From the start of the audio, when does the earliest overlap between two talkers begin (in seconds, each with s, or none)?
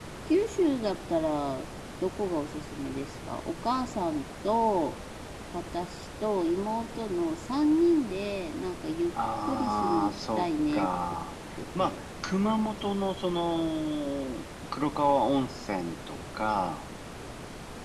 9.4 s